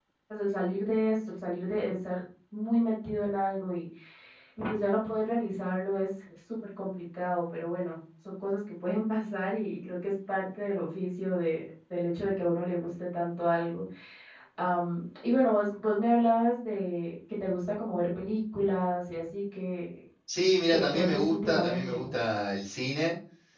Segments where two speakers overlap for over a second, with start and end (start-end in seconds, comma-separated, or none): 20.7-22.0